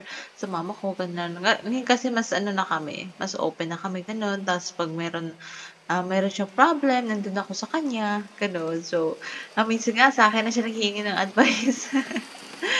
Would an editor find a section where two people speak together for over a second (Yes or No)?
No